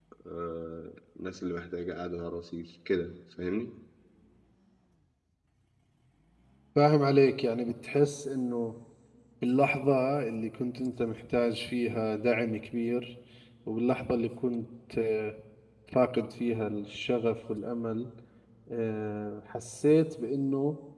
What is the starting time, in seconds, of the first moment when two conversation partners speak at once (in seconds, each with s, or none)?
none